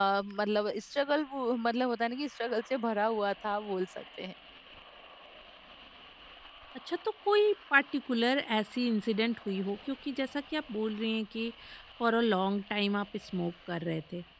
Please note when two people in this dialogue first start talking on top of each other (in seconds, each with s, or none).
none